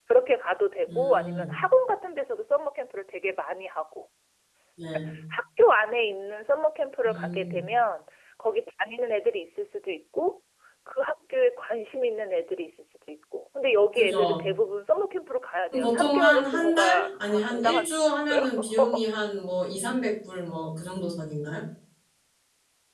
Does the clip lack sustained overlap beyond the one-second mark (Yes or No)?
No